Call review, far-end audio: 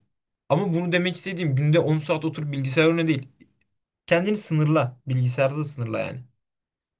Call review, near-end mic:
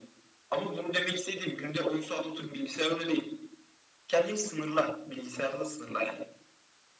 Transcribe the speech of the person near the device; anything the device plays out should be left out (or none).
none